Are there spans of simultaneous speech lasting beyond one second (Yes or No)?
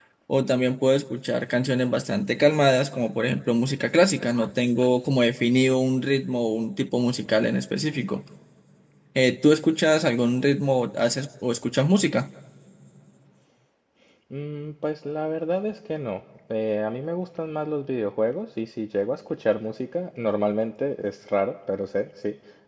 No